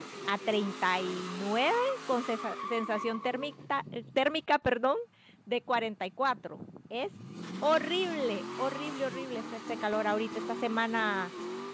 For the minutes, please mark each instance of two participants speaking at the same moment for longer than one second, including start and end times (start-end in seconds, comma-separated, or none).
none